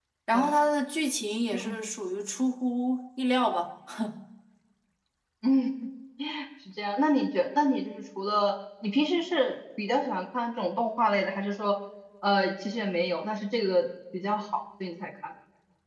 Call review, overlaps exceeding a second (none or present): none